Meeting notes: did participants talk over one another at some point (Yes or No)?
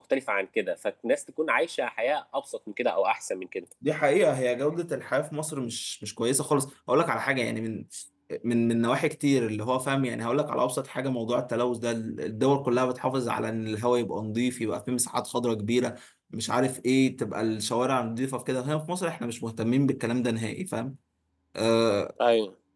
No